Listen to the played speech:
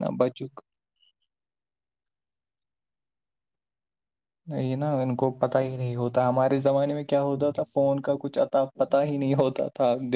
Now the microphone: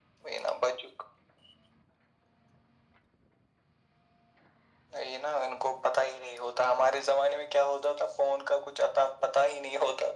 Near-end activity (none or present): none